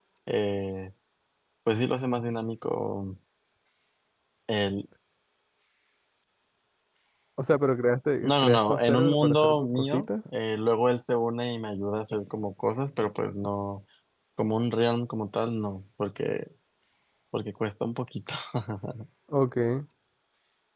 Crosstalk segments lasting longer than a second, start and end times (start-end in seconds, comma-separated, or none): 8.2-10.1